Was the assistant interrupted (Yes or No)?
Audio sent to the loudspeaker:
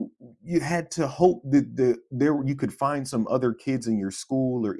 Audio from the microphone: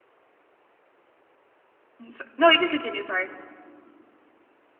Yes